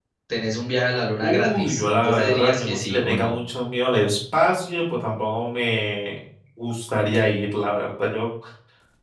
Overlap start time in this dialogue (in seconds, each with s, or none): 1.2 s